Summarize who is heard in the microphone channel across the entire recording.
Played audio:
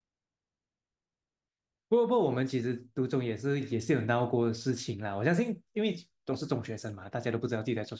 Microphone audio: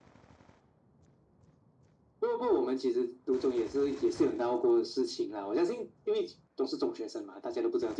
echo only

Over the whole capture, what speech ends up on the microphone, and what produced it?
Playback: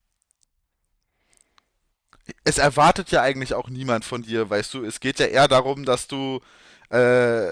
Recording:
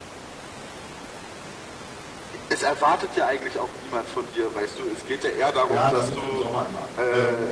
both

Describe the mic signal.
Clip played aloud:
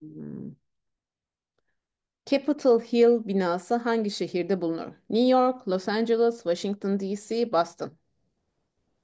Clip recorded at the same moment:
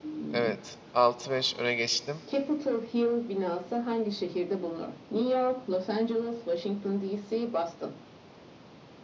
both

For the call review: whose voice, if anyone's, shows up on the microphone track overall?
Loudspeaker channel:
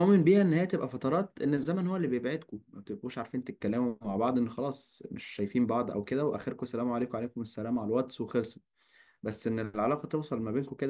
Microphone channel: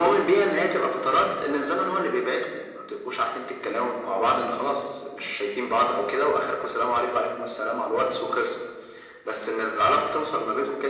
echo only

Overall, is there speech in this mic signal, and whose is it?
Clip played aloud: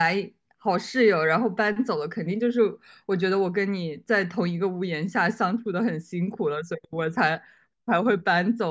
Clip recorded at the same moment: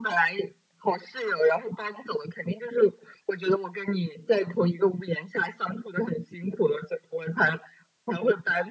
echo only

